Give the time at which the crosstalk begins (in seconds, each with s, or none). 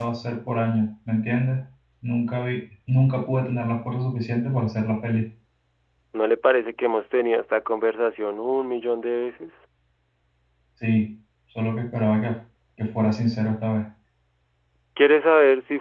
none